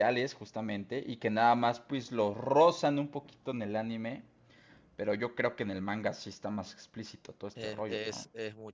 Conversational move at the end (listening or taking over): taking over